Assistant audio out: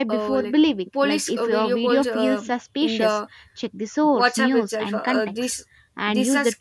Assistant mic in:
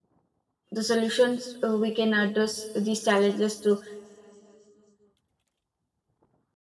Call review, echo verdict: none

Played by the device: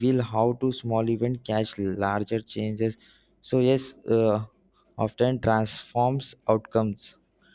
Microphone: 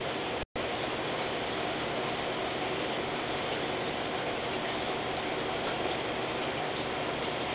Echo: none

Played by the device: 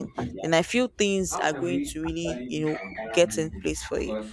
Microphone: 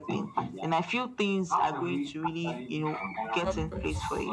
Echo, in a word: present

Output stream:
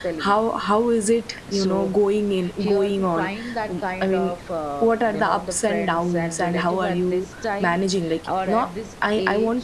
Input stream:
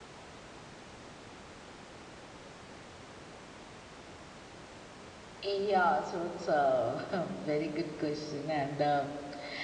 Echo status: none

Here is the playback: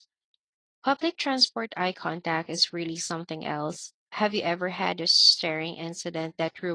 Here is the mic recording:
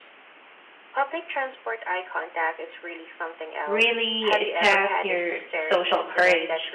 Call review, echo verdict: present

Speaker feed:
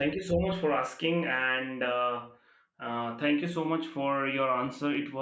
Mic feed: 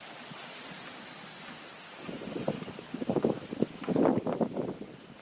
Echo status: none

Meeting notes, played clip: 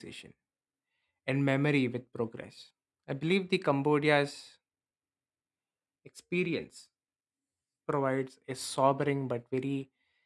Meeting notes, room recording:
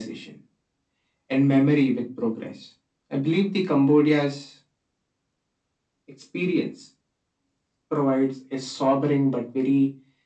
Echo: present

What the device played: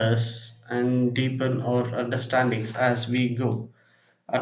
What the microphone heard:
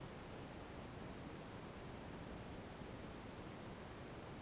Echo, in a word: none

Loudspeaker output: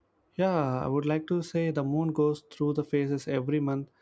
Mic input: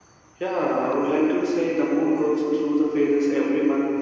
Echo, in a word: present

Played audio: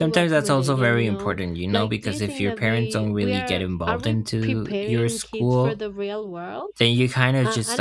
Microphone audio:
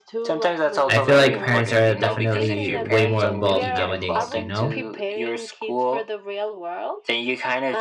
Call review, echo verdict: present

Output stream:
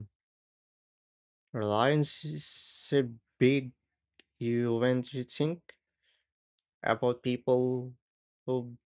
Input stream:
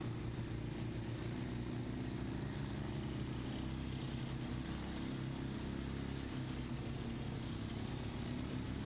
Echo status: none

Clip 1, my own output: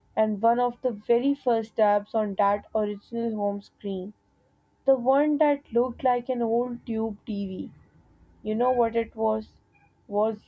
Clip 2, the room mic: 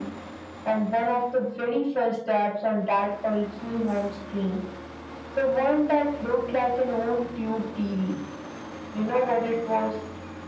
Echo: present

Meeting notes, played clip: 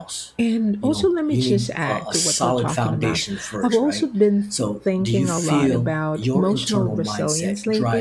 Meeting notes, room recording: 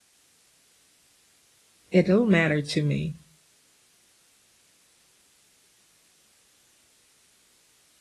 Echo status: none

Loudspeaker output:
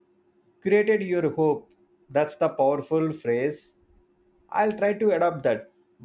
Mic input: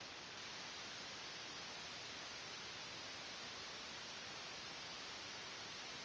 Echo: none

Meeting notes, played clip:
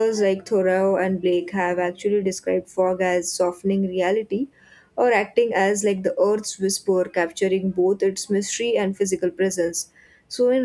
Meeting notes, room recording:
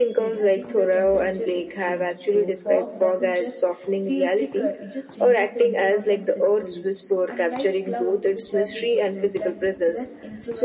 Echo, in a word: present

